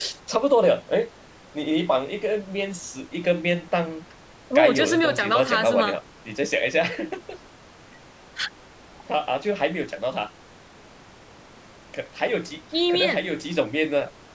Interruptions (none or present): present